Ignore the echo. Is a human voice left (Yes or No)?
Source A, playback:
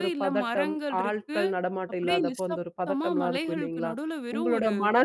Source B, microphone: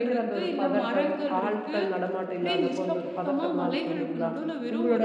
No